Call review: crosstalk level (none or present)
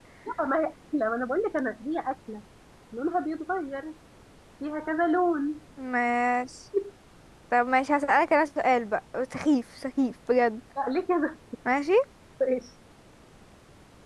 none